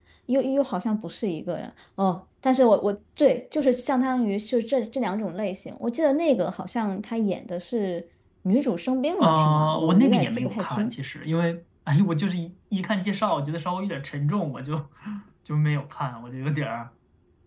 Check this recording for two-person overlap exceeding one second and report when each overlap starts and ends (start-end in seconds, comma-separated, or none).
9.2-11.0